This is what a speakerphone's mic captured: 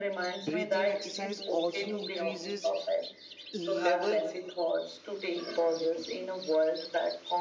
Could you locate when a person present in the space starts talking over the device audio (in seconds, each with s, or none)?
0.4 s